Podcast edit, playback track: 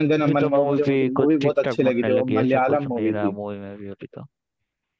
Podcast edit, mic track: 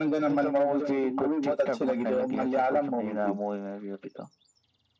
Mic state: echo only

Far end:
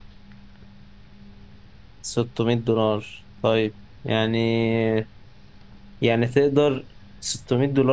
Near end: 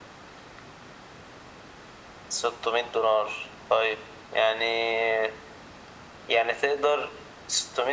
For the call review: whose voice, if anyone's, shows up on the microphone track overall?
echo only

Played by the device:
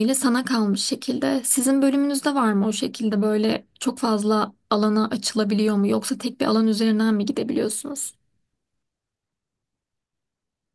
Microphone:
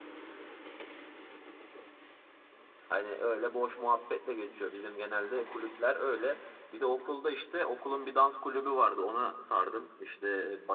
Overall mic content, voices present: user only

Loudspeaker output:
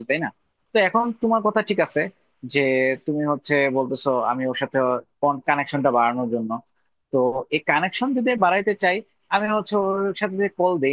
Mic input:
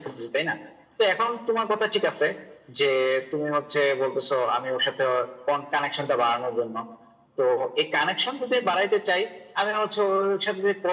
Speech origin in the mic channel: echo only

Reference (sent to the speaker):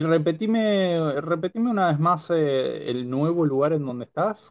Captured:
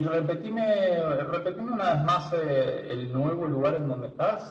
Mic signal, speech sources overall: echo only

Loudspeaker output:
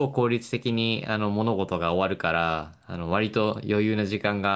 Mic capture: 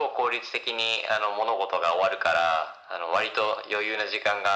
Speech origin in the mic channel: echo only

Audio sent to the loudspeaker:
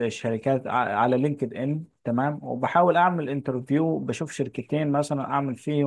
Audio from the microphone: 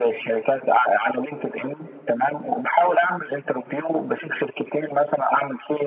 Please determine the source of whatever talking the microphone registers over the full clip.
echo only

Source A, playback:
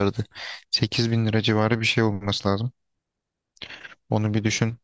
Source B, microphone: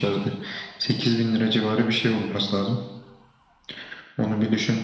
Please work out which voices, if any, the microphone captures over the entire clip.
echo only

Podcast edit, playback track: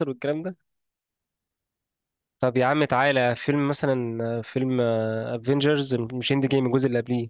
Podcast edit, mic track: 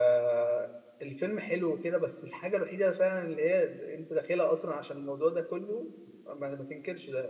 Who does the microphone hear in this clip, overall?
user only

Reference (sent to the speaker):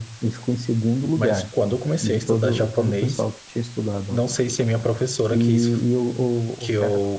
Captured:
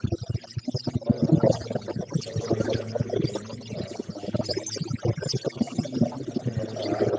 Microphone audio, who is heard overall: both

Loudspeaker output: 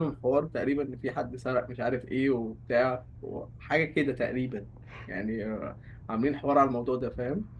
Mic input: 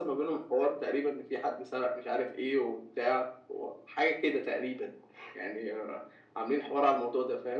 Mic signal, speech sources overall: echo only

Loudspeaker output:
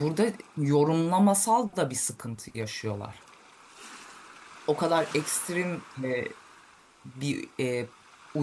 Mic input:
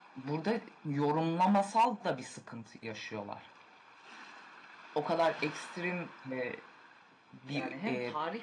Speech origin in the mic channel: both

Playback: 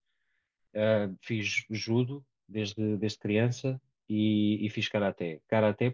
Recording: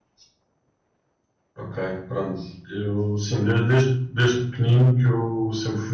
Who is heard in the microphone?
user only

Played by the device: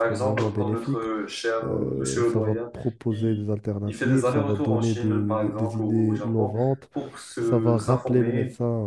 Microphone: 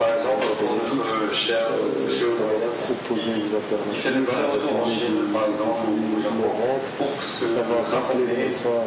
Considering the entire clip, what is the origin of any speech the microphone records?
echo only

